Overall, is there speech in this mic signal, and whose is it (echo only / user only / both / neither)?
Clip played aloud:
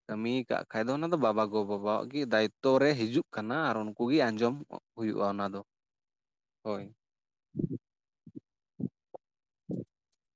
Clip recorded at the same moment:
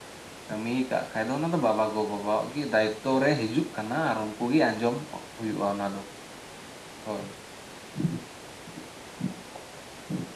echo only